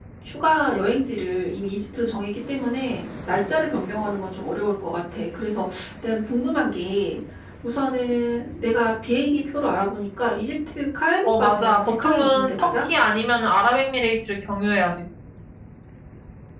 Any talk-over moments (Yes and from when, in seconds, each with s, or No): Yes, from 11.2 s